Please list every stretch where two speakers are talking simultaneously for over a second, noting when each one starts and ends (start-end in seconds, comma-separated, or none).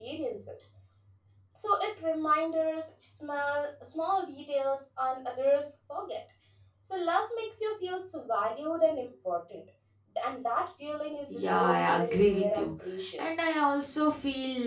11.3-12.7